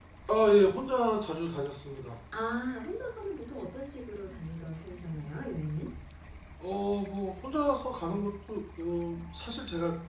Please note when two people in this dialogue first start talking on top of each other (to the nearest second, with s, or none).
none